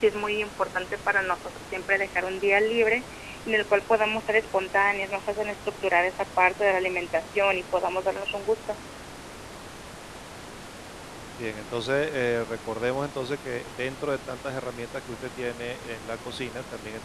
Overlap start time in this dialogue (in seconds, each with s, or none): none